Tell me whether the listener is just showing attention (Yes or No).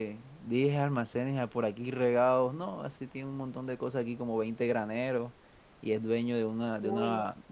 Yes